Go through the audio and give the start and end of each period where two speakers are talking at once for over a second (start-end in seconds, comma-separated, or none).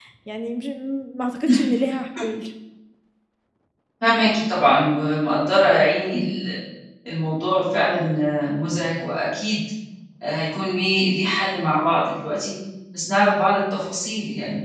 none